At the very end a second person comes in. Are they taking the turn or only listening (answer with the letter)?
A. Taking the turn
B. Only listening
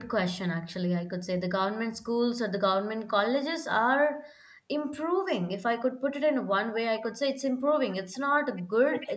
B